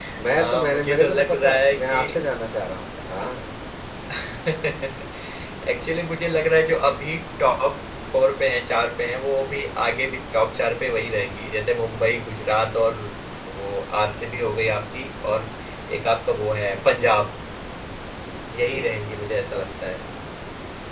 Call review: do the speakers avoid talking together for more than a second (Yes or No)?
No